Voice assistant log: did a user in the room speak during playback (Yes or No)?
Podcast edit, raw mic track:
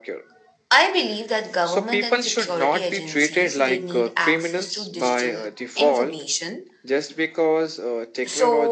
No